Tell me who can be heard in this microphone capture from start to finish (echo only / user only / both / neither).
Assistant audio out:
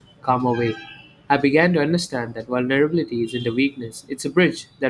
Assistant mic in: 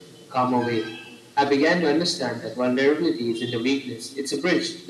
echo only